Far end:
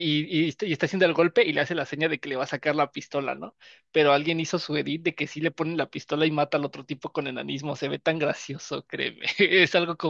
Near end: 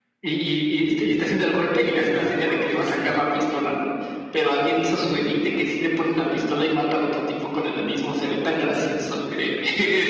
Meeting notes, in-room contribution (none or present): present